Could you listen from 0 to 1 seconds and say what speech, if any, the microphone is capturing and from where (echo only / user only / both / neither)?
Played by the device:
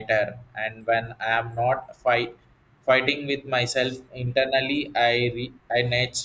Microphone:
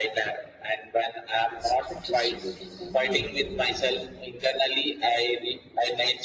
echo only